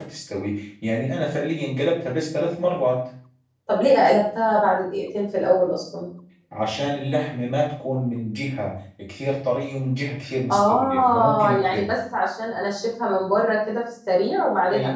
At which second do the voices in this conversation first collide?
10.5 s

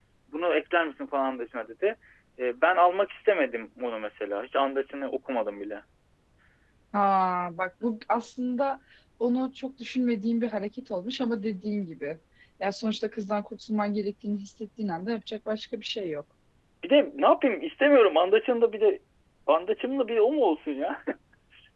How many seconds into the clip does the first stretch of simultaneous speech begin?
none

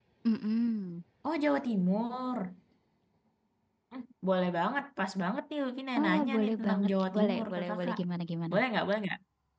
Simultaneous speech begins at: 6.0 s

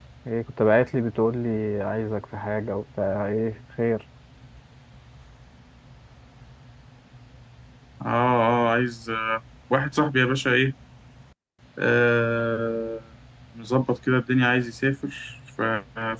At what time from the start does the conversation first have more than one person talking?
none

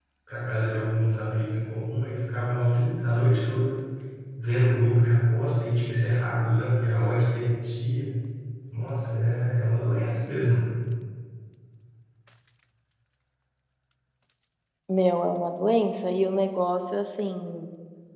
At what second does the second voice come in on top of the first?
none

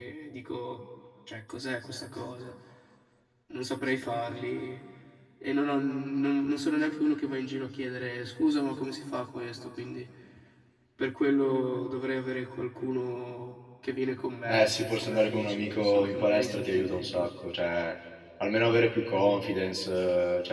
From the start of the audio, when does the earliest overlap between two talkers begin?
14.5 s

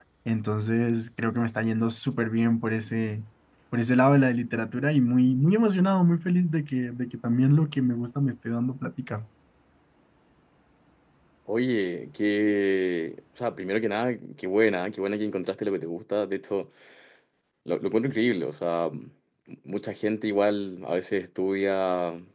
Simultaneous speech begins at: none

